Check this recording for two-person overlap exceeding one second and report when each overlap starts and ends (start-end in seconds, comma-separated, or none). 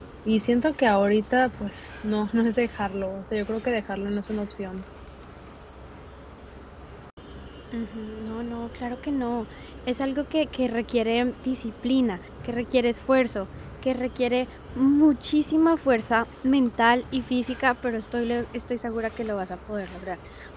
none